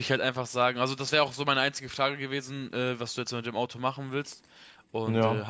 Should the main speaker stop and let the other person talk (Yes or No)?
No